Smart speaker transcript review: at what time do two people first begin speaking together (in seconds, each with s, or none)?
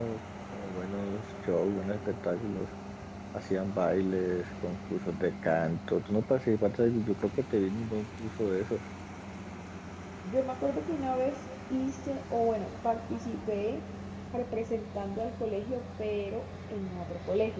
none